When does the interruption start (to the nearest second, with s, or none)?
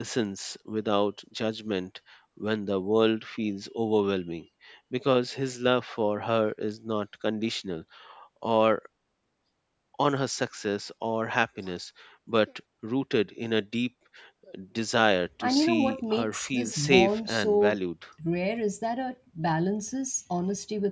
15 s